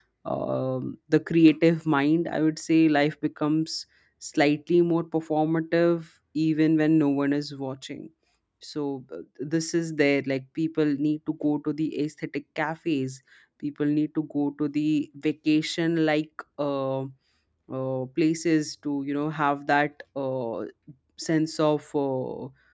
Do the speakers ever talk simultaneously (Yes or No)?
No